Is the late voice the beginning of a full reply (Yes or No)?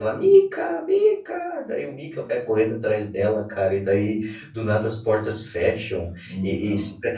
No